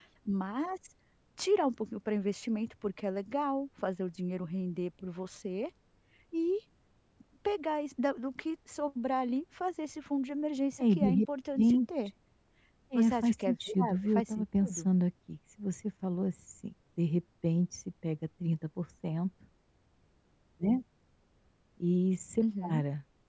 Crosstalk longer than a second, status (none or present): present